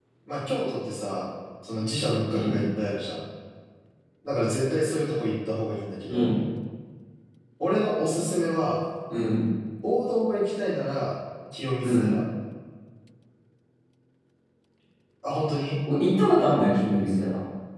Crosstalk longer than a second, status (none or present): none